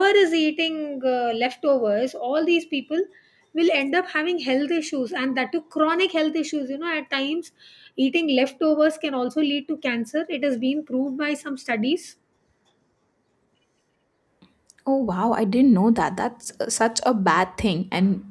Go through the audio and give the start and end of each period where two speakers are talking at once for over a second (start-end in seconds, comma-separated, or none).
none